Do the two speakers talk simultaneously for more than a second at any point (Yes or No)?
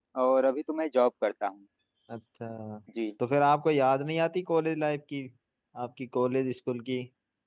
No